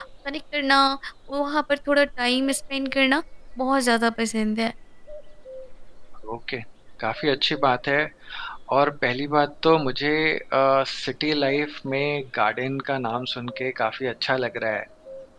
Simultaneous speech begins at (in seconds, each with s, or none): none